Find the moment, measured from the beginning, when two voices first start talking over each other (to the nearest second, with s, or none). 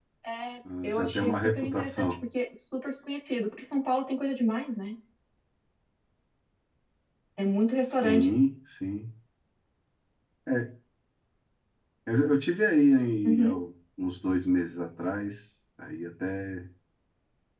1 s